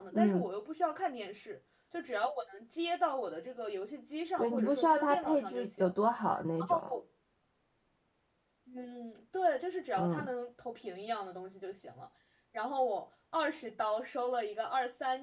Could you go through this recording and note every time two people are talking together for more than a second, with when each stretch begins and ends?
4.4-5.8

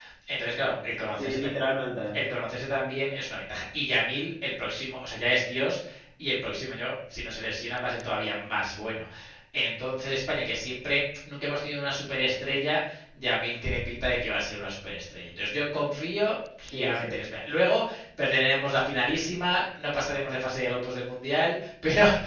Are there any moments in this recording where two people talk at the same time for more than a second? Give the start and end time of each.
none

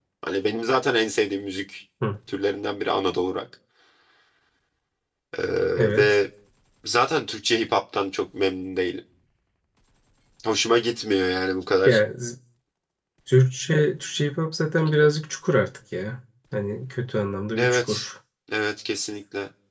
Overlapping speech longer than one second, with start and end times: none

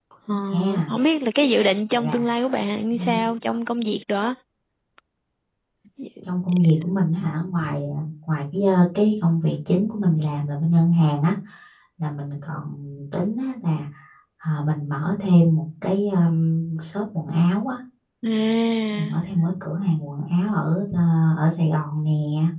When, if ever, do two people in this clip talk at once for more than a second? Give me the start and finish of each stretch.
none

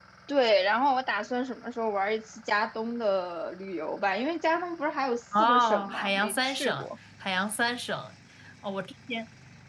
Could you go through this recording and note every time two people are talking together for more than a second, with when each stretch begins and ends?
5.4-6.9

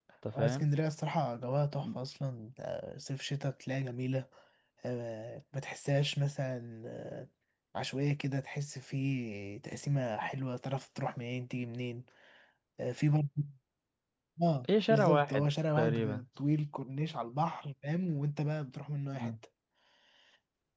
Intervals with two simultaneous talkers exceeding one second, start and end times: 14.9-16.2

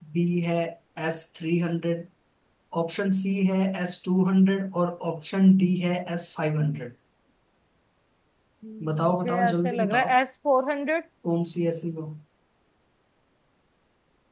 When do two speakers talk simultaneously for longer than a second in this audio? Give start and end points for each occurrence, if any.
8.9-10.1

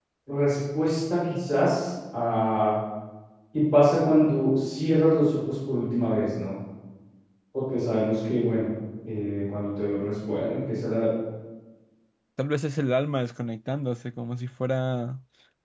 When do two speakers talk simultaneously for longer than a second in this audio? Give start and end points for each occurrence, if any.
none

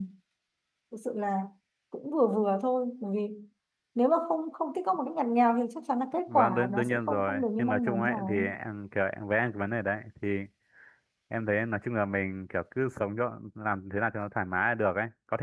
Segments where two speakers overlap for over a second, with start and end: 6.3-8.4

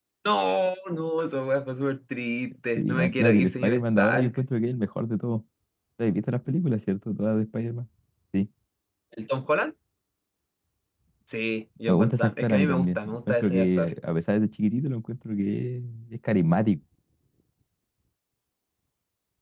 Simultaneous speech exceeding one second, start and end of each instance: 2.8-4.4, 11.9-13.9

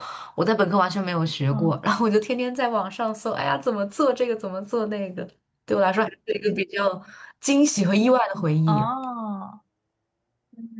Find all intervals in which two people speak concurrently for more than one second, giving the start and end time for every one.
none

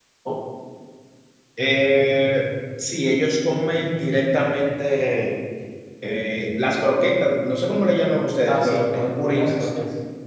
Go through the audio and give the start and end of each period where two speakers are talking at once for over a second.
8.5-9.7

